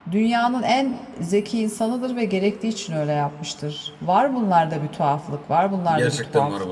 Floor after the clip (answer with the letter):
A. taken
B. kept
A